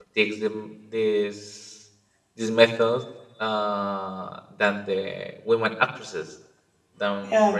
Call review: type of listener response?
listening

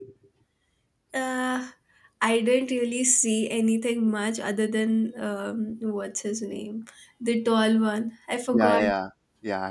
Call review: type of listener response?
taking over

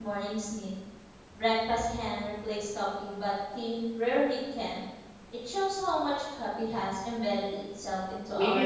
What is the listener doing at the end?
taking over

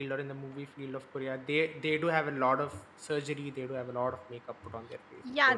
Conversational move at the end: taking over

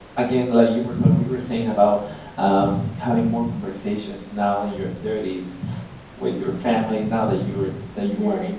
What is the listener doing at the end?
listening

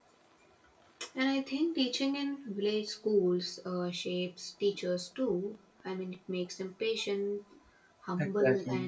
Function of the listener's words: listening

